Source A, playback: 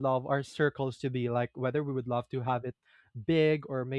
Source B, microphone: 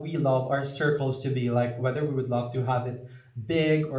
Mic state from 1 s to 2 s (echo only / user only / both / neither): echo only